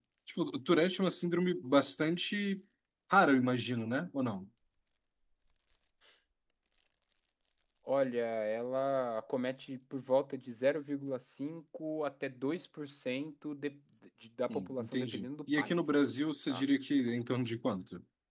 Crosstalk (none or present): present